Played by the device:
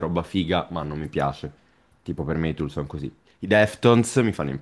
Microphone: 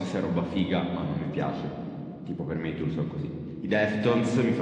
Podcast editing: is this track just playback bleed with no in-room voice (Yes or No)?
Yes